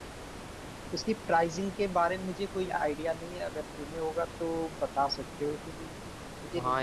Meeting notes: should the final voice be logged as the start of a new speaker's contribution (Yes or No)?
Yes